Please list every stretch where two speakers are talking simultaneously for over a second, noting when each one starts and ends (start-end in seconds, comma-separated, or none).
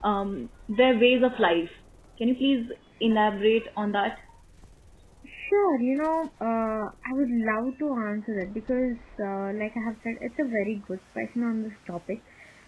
none